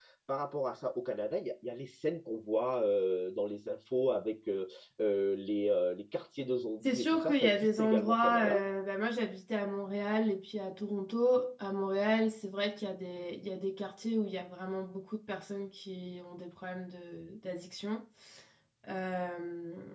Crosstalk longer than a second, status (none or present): present